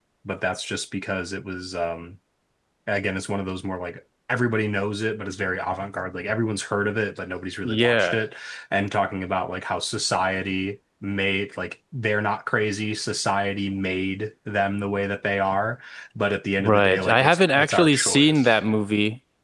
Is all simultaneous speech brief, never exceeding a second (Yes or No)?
No